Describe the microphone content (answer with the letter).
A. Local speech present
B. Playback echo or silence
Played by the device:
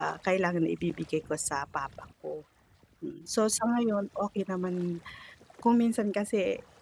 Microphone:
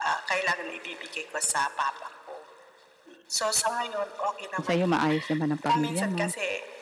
A